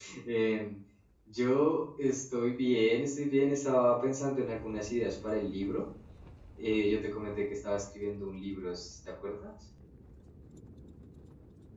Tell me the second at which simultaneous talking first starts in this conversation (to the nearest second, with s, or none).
none